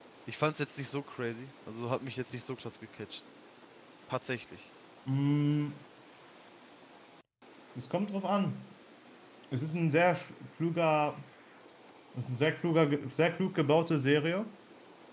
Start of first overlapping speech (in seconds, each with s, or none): none